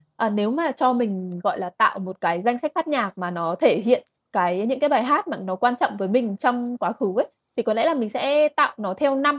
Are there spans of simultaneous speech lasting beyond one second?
No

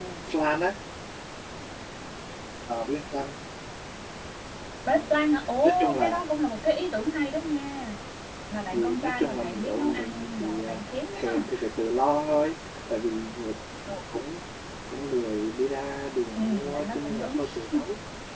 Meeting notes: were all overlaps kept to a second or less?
No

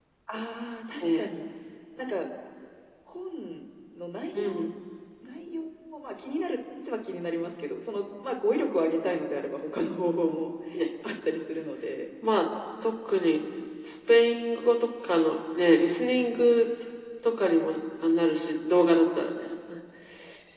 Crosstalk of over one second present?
No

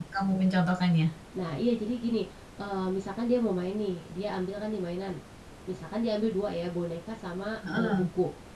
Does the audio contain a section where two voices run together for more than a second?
No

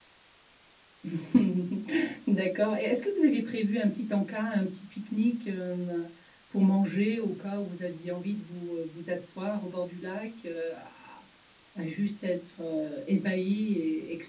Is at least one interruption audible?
No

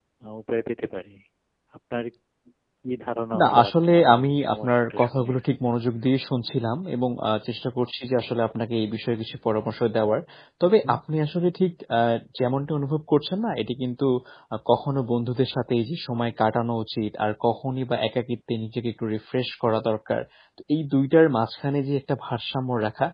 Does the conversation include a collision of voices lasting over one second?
Yes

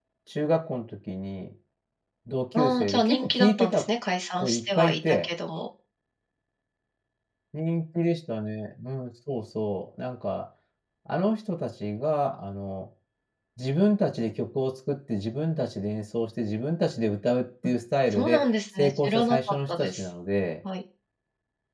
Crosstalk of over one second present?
Yes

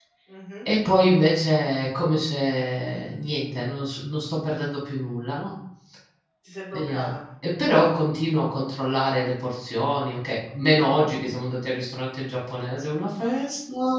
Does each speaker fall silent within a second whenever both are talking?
Yes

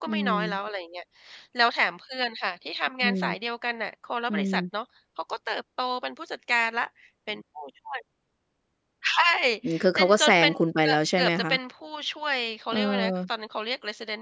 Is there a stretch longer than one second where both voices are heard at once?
Yes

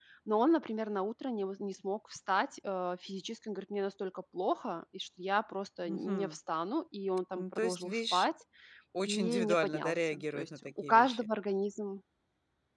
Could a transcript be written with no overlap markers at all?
No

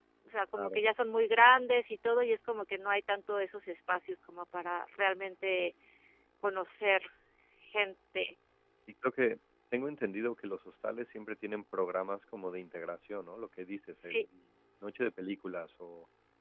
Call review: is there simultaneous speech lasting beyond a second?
No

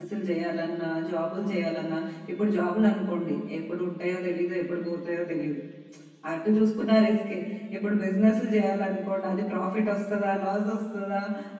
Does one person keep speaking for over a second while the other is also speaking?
No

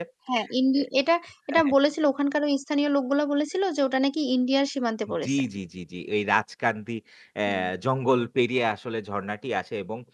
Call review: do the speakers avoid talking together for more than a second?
Yes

